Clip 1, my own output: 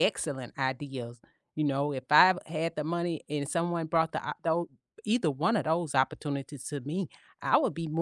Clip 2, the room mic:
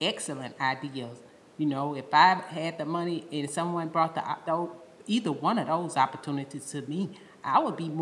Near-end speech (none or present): none